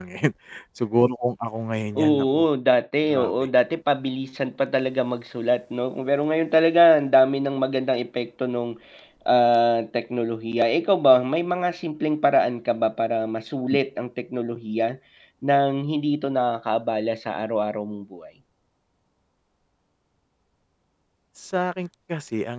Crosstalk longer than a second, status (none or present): none